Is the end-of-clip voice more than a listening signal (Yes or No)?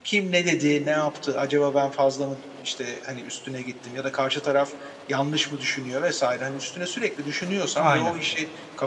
No